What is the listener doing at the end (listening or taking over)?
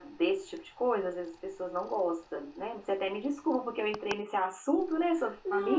taking over